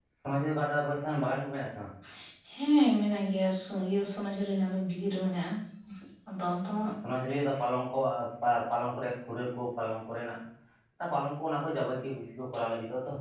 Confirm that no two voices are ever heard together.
Yes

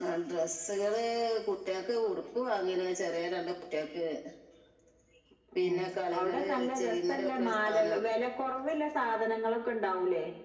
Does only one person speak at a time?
No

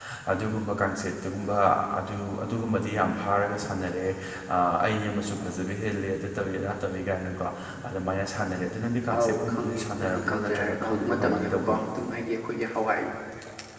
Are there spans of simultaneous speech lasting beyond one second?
Yes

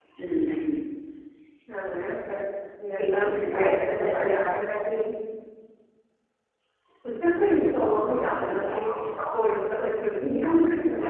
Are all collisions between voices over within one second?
No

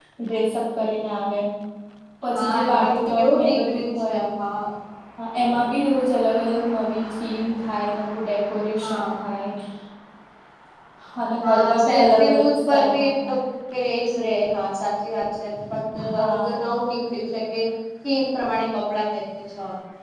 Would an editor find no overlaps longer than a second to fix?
No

